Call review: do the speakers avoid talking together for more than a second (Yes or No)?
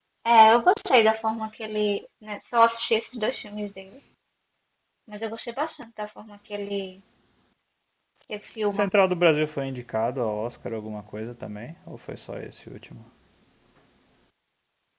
Yes